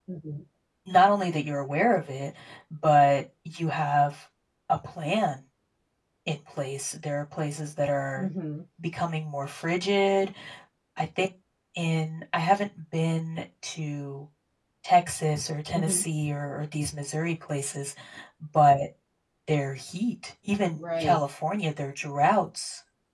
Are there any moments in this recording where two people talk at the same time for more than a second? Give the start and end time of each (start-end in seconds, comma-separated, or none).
none